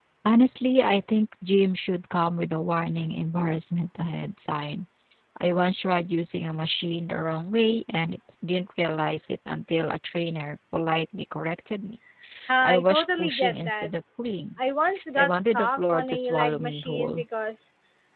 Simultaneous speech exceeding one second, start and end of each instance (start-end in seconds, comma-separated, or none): 12.6-13.9, 15.2-17.2